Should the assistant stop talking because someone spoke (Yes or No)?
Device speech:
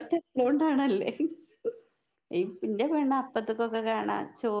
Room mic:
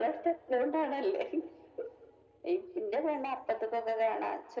No